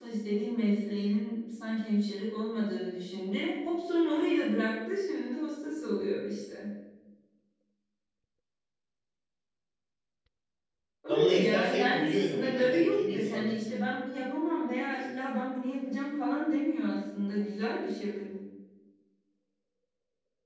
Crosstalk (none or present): present